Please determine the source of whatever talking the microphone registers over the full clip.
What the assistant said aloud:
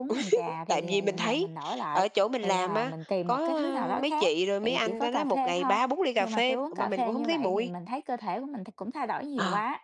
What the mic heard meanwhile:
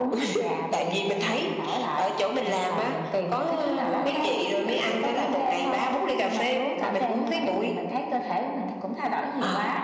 echo only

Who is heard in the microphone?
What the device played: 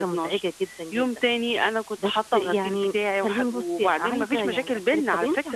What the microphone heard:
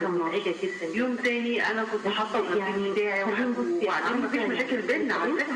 echo only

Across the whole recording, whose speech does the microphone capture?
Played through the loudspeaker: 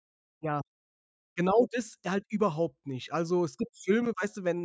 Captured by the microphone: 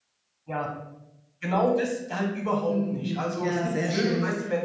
both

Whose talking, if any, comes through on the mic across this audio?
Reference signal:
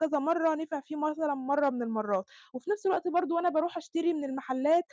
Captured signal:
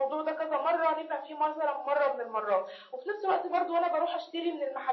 echo only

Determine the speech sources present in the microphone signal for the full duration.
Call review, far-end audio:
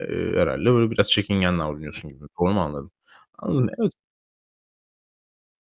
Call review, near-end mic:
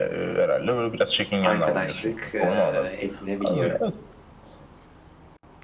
both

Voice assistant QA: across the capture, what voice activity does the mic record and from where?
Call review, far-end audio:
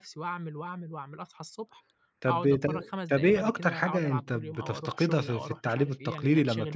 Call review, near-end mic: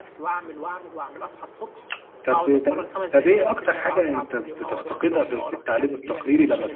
echo only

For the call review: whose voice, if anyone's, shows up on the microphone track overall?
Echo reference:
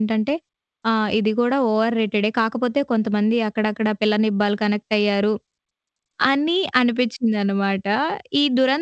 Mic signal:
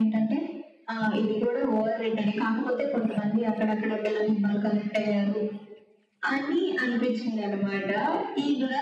echo only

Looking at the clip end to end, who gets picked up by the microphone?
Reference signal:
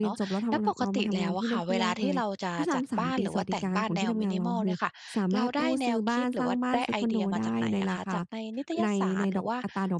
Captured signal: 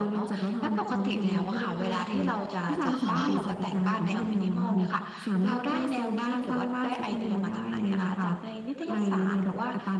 both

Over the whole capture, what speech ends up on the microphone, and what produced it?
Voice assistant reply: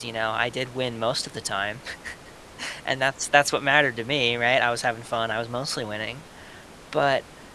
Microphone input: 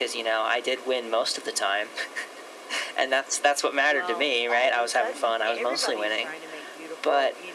both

